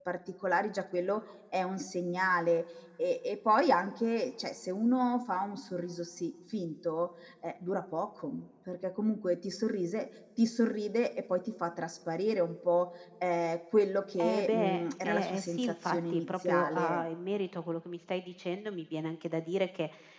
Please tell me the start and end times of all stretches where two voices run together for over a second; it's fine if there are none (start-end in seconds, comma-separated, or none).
14.2-17.0